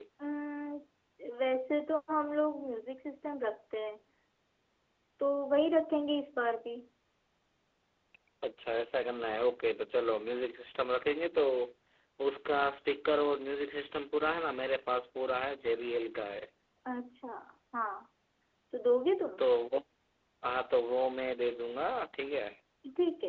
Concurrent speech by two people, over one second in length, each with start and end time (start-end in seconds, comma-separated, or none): none